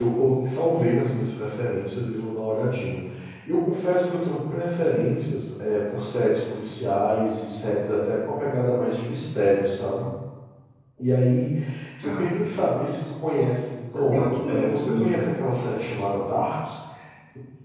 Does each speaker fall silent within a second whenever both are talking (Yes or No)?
No